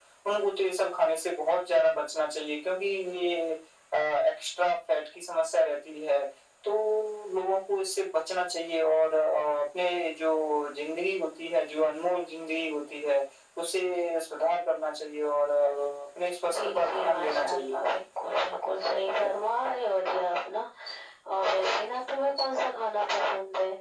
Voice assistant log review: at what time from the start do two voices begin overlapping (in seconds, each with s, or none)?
16.4 s